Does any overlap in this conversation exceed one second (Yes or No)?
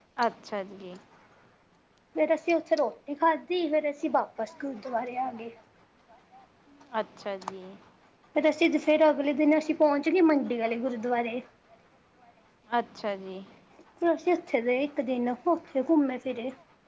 No